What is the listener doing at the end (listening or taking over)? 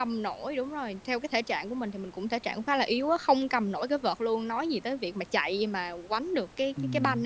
taking over